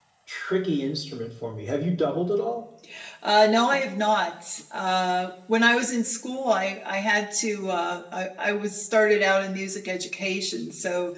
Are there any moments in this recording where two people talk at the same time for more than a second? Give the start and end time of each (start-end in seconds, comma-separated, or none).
none